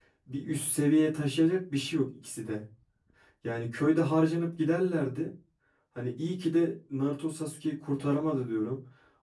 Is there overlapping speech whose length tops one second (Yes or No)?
No